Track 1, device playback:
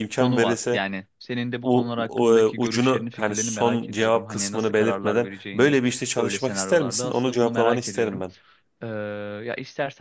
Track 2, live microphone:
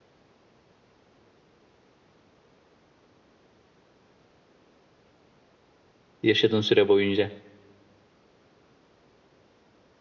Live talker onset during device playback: 6.2 s

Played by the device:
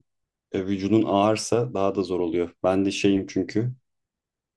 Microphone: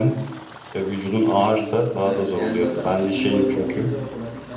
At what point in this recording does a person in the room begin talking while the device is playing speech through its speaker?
2.0 s

